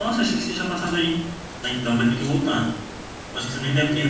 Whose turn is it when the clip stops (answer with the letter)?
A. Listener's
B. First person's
B